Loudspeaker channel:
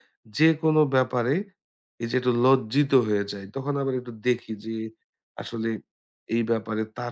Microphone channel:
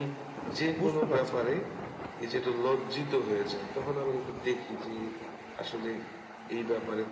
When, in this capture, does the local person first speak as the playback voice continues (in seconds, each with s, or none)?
0.8 s